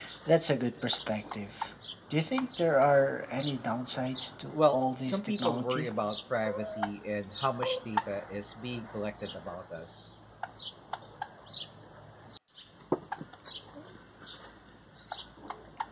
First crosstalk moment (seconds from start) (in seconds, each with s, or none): 4.5 s